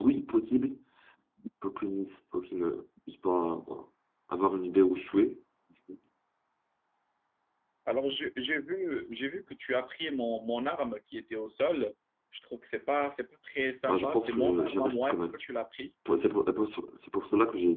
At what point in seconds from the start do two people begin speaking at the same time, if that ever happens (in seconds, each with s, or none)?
13.9 s